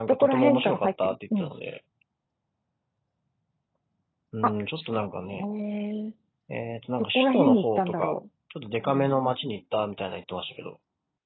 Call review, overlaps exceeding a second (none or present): present